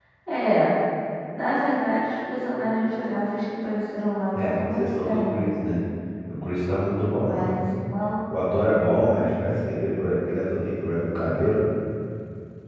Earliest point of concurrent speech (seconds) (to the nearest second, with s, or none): 4 s